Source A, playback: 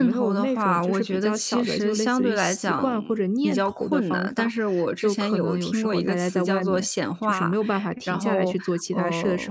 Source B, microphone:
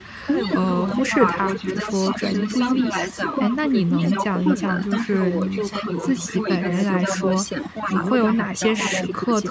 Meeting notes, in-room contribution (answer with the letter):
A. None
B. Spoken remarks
B